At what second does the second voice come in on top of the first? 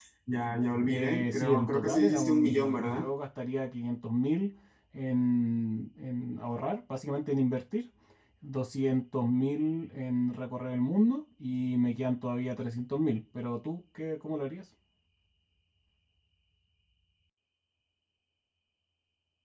0.9 s

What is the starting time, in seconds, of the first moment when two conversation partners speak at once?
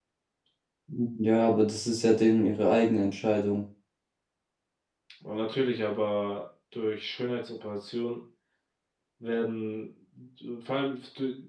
none

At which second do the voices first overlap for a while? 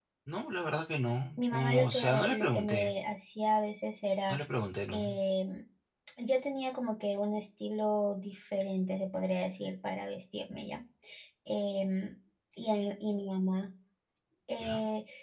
1.4 s

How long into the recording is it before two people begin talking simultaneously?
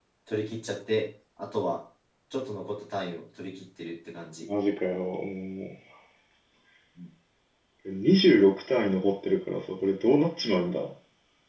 none

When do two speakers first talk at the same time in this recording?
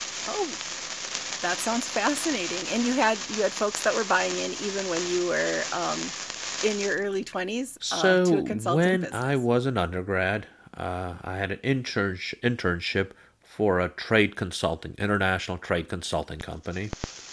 7.8 s

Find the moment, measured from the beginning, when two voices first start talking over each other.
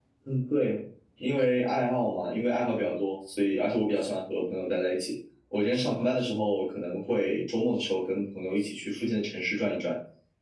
none

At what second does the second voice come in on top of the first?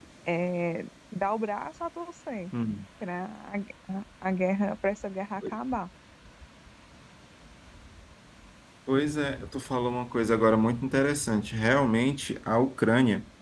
none

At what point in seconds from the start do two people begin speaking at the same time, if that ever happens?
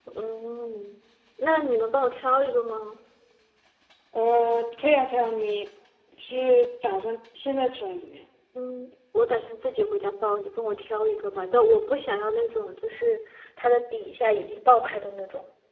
none

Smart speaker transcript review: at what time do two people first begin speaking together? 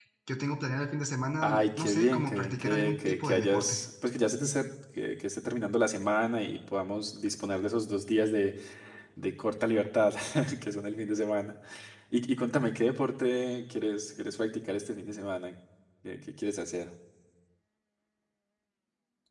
1.4 s

